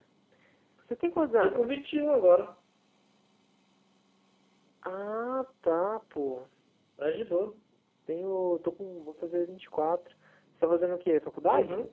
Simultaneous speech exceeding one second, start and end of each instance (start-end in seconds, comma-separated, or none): none